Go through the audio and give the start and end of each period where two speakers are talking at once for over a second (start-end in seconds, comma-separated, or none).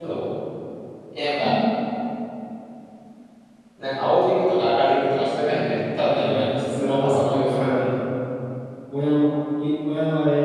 6.1-7.8